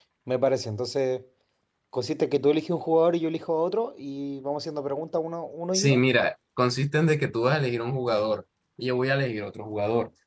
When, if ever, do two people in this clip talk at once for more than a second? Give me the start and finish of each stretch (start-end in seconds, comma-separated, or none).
none